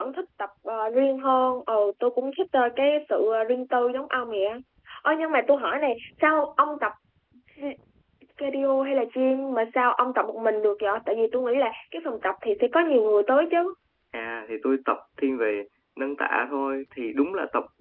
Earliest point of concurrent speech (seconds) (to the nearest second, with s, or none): none